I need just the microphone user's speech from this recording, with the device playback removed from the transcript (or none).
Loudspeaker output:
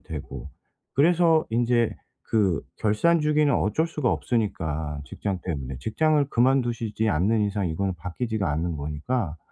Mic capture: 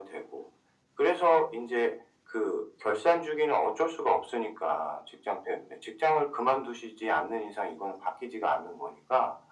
none